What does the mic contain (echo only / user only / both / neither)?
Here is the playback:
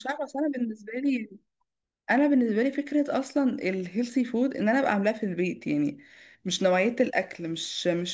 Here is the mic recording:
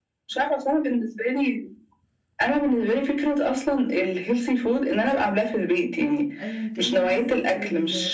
both